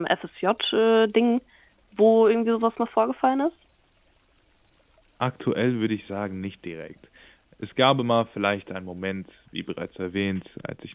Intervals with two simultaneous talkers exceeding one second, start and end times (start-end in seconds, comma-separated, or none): none